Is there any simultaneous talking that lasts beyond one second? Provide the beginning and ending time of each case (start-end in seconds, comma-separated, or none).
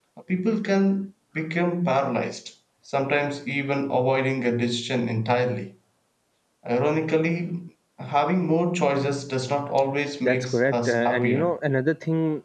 10.2-11.5